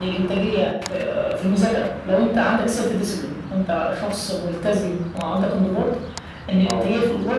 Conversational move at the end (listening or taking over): listening